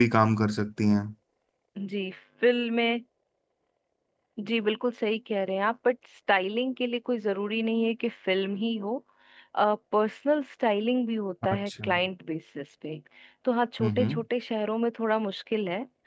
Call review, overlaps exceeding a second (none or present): none